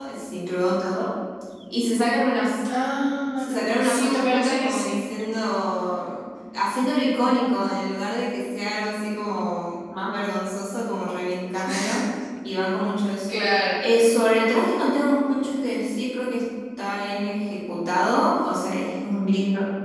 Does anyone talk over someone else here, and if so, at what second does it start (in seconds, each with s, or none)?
3.4 s